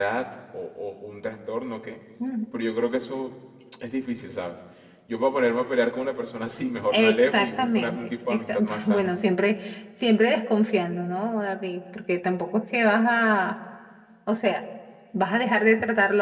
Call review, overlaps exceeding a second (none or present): present